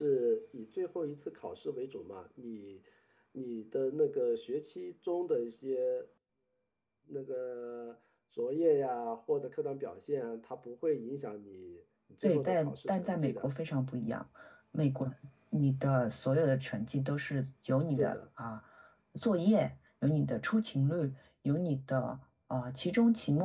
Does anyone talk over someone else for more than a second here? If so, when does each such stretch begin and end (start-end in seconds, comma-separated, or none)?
12.2-13.5